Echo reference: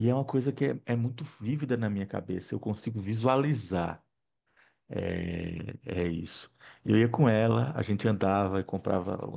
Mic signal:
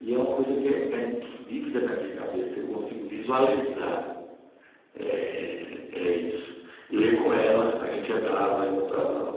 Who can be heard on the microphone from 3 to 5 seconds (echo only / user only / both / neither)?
echo only